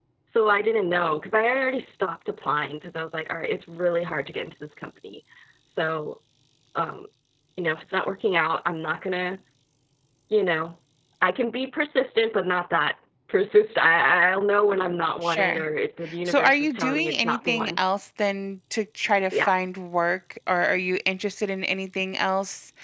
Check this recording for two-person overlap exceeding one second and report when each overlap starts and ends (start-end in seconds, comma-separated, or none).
16.3-17.7